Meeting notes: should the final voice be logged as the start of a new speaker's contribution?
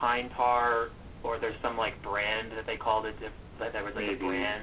No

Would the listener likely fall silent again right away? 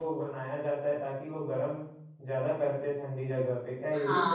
No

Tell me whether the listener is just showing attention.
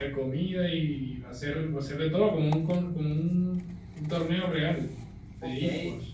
No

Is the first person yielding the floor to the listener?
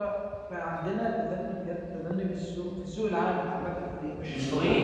No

